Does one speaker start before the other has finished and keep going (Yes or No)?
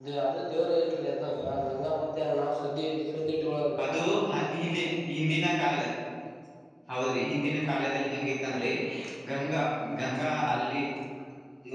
No